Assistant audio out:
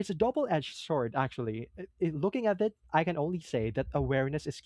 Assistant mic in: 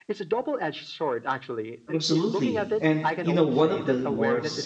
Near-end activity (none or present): present